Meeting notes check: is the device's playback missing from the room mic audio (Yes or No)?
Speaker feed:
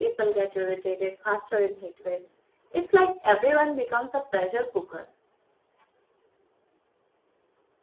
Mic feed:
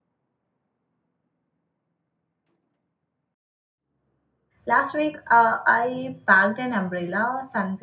Yes